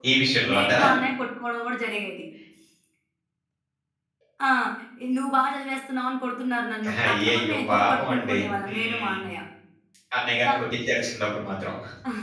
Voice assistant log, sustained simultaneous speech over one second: present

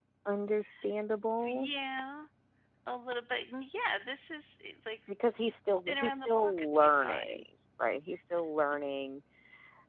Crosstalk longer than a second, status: present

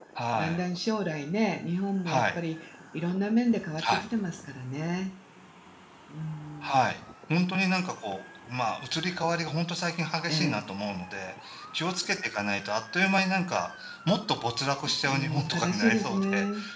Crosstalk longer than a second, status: present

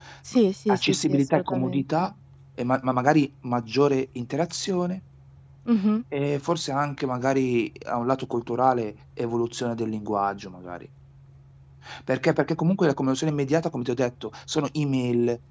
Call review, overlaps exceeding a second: present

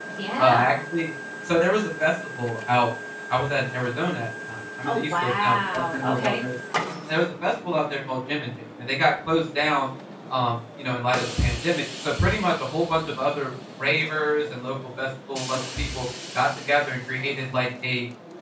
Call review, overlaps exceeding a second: present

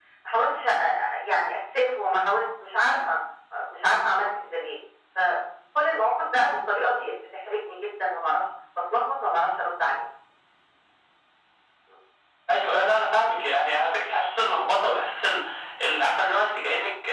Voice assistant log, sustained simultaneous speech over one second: none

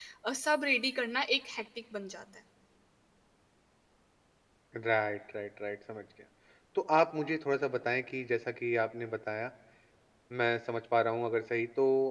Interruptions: none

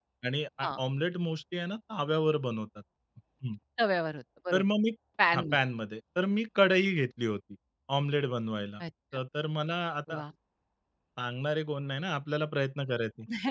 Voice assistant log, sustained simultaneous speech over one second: none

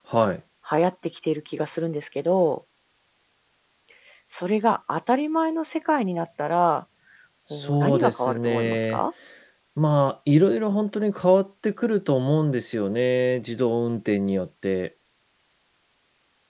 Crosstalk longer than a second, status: present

